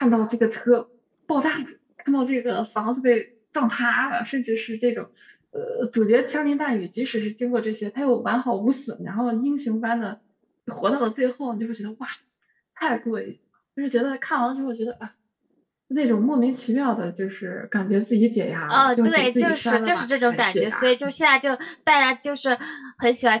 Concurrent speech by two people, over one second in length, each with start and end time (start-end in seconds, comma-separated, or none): 18.7-20.8